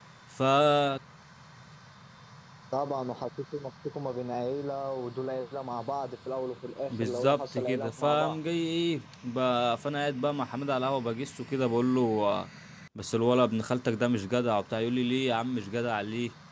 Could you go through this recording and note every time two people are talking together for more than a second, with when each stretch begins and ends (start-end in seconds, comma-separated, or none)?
6.9-8.4